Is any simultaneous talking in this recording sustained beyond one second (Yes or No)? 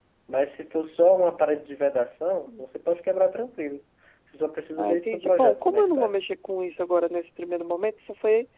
Yes